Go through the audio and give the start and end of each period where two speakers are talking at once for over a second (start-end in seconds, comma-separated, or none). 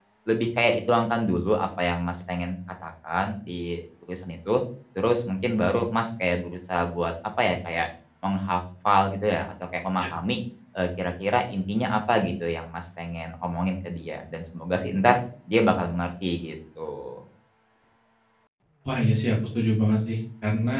none